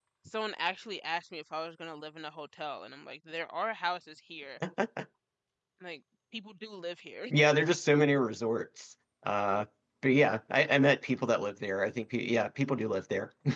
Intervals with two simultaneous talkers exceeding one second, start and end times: none

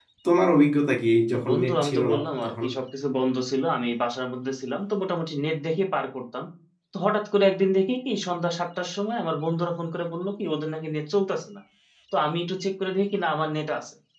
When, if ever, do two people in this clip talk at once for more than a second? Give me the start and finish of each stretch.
1.3-2.6

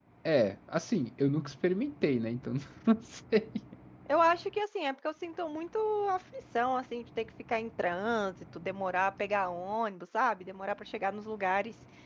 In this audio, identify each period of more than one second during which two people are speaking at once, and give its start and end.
none

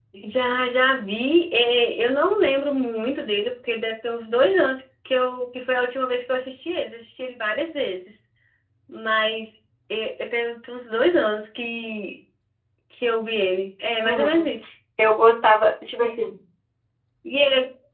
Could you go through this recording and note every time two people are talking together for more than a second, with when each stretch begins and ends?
none

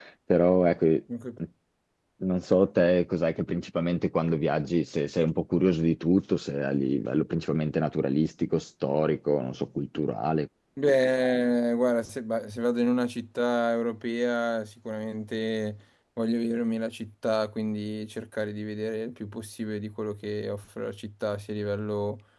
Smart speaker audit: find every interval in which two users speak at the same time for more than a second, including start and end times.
none

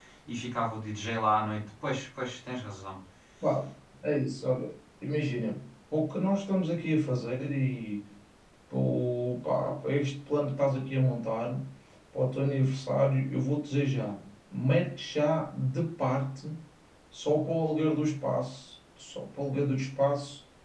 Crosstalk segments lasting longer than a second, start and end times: none

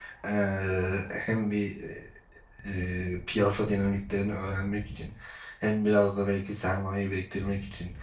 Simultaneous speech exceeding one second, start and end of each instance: none

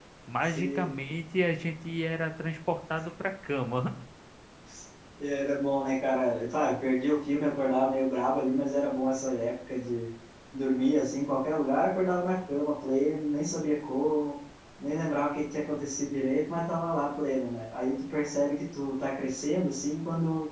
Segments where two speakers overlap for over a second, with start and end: none

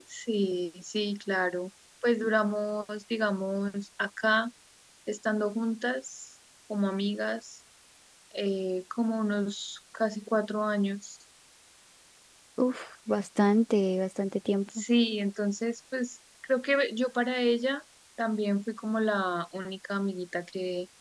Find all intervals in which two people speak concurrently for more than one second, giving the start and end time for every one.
none

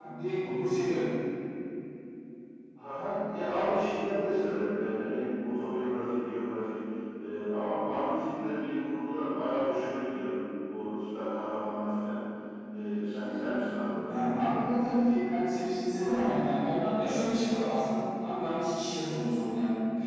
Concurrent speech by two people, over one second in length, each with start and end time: none

